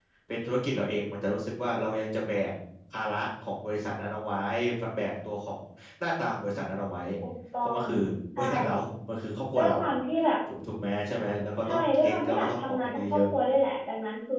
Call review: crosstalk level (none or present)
present